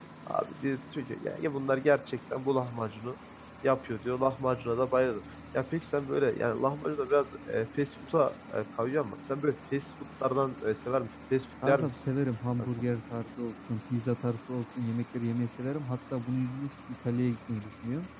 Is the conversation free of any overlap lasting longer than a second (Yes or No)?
Yes